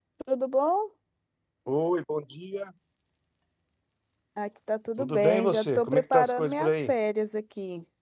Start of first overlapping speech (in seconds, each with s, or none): 5.0 s